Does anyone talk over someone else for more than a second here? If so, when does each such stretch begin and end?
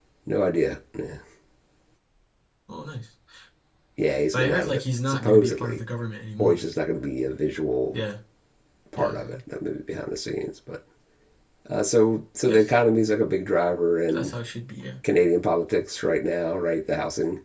4.3-5.8

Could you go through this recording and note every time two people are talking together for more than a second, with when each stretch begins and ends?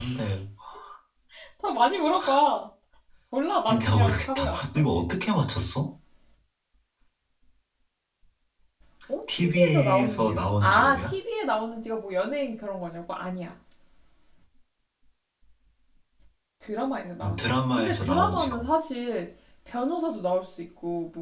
3.6-4.8, 9.3-11.1, 17.2-18.6

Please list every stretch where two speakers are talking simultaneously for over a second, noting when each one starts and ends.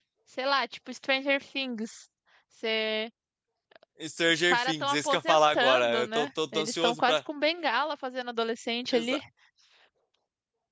4.5-7.2

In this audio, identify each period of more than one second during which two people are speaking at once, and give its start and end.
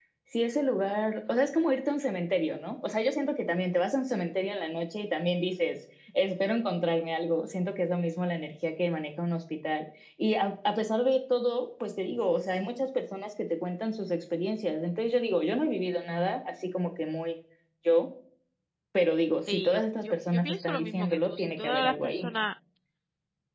19.5-22.5

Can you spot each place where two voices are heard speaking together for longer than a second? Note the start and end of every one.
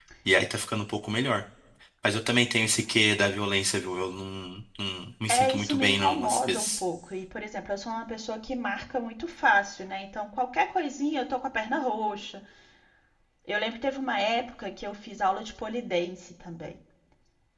5.3-6.8

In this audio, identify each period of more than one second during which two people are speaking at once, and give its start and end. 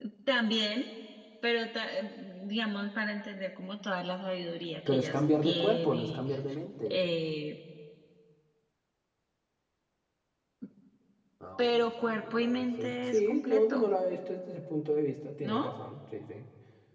4.9-6.2, 11.6-13.9

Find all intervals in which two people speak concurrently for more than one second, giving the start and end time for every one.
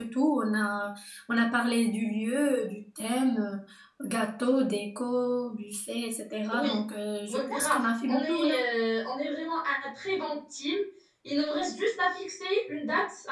7.3-8.6

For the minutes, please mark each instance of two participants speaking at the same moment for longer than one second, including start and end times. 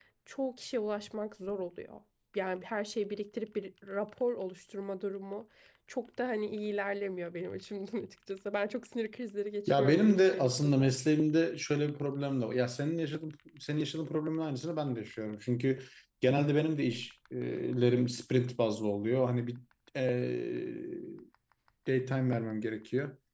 9.7-10.9

